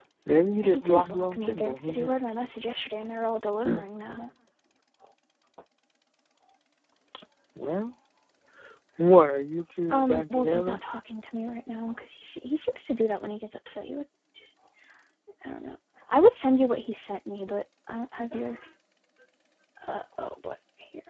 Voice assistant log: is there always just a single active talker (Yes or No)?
No